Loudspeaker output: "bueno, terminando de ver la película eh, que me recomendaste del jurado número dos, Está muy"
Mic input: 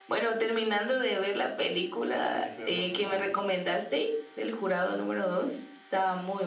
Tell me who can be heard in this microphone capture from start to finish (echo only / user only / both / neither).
both